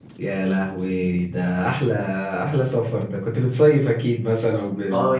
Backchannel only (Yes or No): No